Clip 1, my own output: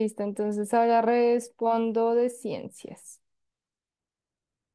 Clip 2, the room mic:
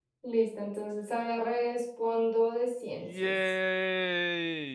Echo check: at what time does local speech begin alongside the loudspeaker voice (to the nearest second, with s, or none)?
3 s